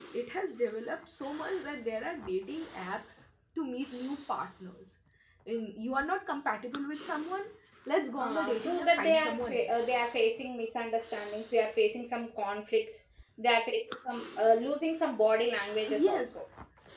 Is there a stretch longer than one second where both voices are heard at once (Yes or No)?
Yes